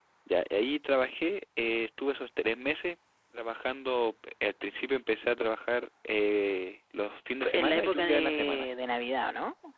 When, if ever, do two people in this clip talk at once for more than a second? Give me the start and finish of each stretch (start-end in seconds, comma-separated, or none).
7.4-8.7